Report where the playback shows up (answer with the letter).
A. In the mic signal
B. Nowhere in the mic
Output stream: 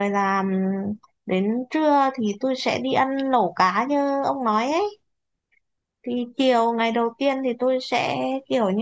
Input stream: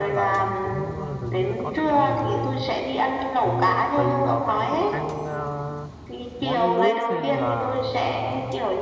A